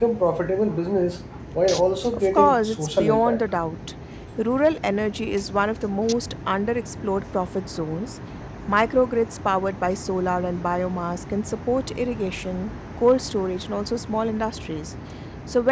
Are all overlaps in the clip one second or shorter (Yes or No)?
No